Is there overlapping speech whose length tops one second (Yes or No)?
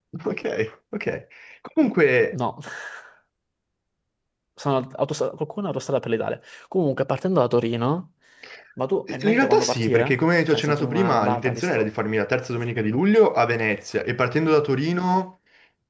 Yes